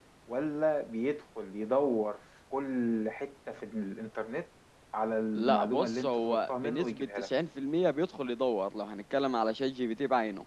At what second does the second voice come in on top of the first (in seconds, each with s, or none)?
5.4 s